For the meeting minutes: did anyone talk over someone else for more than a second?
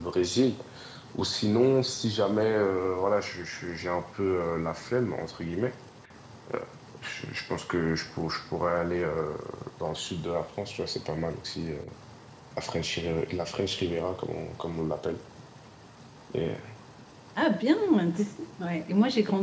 No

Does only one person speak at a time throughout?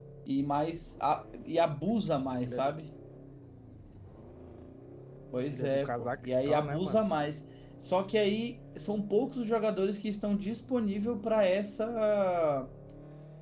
No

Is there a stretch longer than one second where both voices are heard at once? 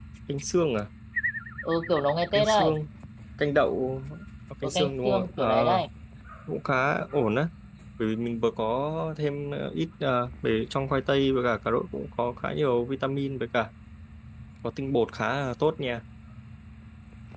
Yes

